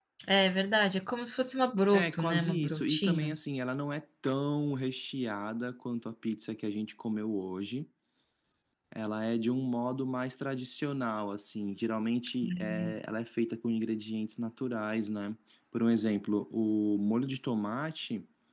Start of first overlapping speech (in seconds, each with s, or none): 1.9 s